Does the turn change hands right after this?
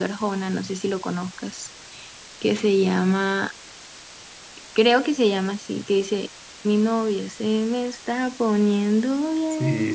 Yes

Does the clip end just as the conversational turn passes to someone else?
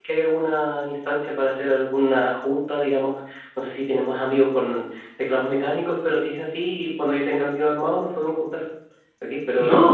No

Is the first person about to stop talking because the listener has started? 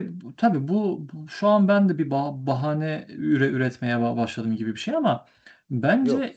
No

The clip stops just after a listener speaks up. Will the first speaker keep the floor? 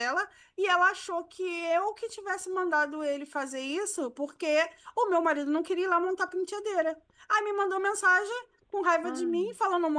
Yes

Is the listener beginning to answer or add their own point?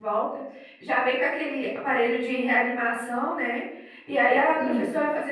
No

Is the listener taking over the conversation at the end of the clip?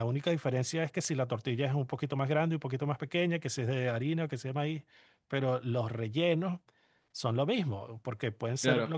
No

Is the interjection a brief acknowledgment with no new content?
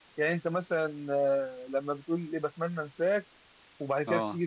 Yes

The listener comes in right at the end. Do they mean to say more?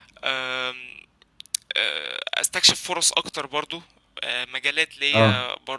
No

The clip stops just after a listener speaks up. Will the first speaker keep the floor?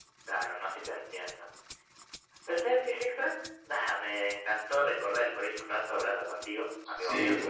No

